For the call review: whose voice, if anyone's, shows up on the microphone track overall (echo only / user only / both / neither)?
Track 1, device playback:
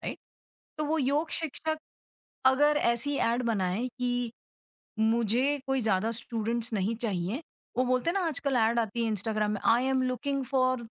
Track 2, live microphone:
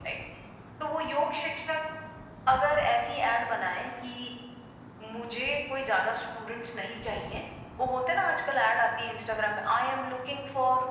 echo only